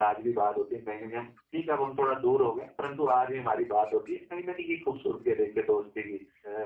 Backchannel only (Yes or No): Yes